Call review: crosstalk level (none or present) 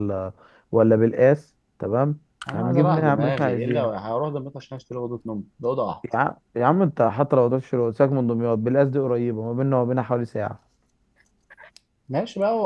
present